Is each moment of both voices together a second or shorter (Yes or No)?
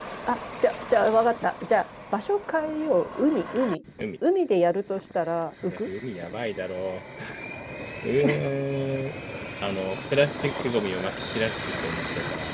Yes